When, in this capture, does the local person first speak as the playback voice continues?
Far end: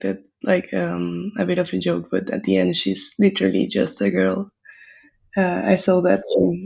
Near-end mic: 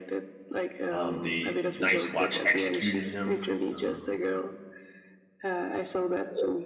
0.9 s

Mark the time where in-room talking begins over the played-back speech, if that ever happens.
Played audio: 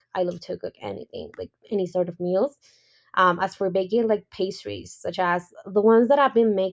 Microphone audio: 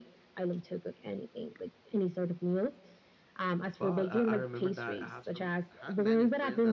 3.6 s

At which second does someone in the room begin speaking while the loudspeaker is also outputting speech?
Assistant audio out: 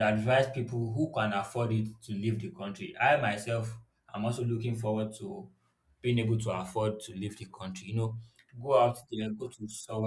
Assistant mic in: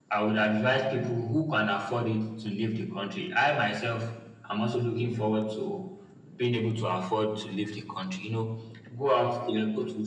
none

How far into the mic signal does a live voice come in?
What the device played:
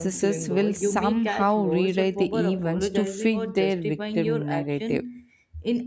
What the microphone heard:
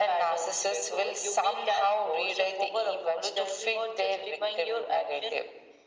none

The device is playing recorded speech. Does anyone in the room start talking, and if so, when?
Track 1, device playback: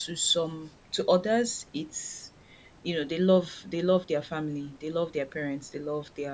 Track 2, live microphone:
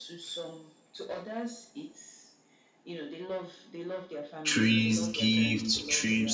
4.4 s

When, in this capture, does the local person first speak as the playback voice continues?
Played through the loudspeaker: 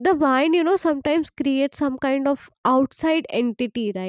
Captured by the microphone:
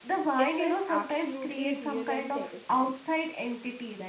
0.3 s

